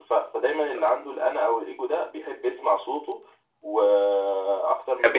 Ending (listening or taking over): listening